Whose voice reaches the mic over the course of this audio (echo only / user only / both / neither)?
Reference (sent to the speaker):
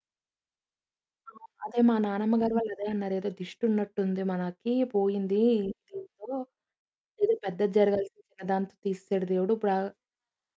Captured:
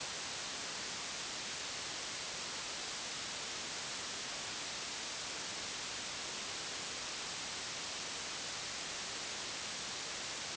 neither